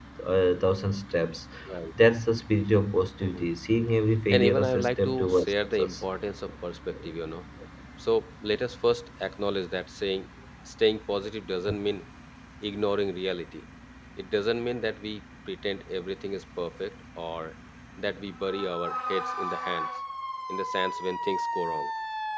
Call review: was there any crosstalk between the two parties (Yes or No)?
Yes